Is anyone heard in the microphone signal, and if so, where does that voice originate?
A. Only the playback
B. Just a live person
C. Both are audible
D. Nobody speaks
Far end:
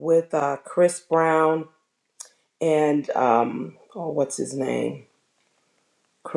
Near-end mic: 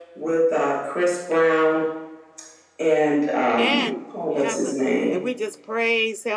C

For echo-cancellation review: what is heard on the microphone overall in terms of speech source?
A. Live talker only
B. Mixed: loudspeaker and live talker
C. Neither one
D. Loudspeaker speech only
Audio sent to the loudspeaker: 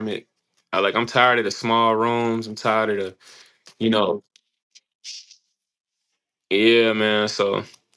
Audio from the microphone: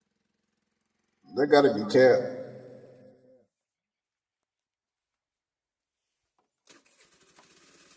A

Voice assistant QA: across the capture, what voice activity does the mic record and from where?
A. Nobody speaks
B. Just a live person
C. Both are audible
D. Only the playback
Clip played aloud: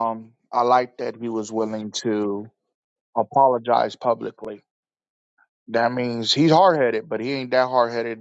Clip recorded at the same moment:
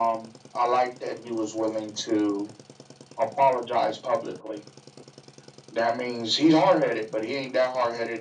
D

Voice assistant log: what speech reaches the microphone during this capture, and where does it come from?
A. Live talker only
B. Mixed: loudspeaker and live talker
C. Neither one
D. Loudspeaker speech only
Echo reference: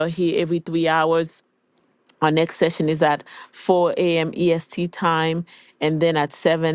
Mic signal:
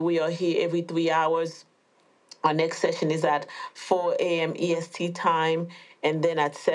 D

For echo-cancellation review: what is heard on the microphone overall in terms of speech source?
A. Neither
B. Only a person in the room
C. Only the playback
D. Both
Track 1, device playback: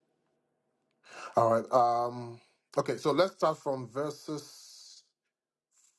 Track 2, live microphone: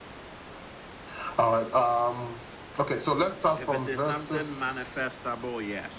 D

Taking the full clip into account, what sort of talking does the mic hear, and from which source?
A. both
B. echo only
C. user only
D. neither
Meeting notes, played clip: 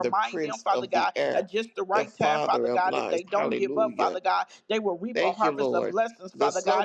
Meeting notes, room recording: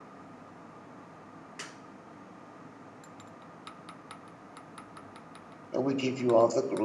C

